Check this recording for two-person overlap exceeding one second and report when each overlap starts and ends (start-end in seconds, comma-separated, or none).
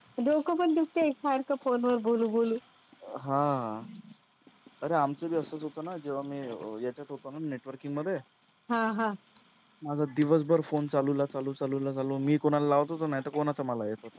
none